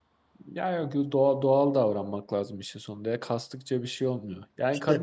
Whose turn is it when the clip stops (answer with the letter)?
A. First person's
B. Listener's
A